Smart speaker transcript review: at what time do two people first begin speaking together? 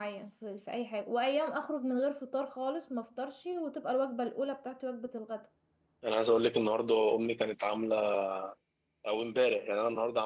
none

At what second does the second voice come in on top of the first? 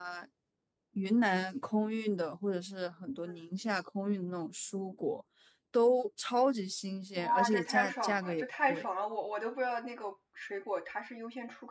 7.2 s

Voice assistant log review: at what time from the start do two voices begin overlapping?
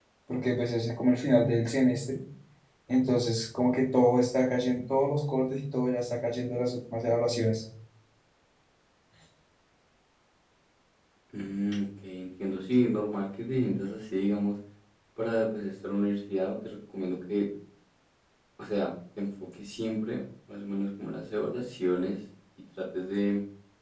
none

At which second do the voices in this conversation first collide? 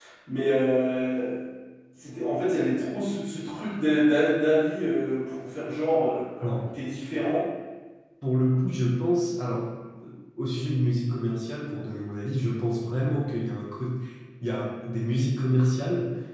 none

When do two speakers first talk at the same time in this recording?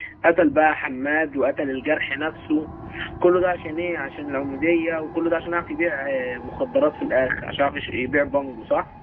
none

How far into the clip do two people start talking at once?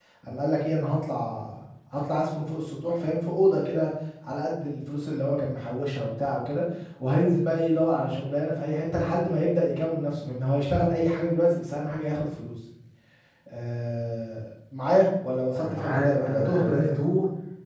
15.6 s

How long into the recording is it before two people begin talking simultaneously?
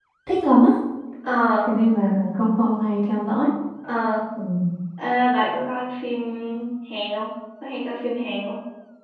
none

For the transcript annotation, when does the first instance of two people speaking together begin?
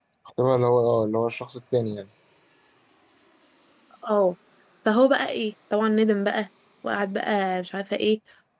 none

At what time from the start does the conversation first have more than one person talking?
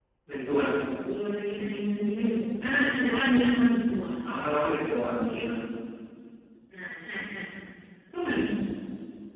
none

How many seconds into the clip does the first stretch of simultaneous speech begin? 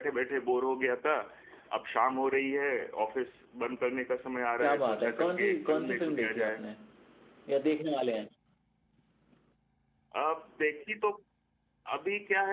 4.6 s

